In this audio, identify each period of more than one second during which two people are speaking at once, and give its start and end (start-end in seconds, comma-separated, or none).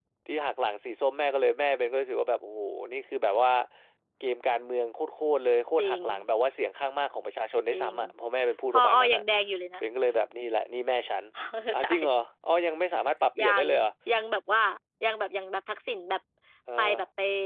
none